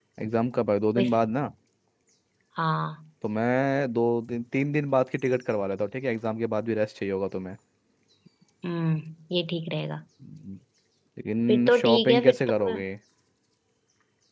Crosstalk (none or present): present